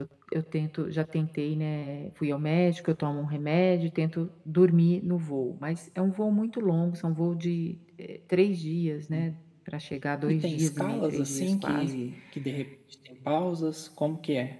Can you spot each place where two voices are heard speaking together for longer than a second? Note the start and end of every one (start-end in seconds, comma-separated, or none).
10.3-11.9